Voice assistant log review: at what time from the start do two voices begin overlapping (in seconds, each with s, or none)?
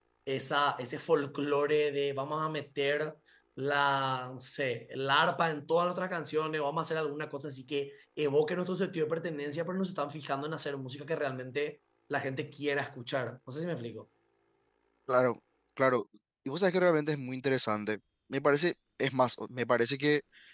none